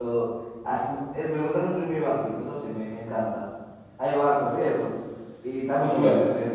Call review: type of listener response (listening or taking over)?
taking over